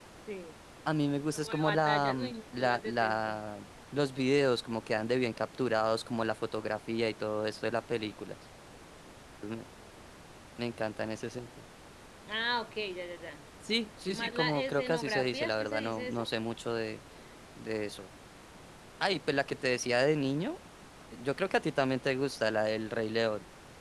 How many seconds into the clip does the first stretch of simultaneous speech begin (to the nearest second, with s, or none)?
1 s